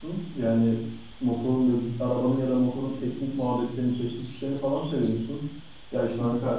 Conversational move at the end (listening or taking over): listening